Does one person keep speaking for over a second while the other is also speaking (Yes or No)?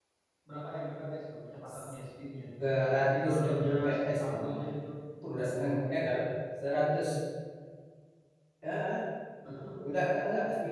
Yes